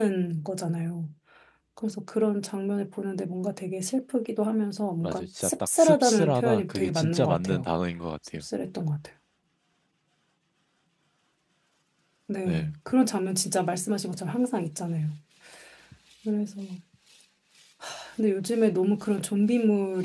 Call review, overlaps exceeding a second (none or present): present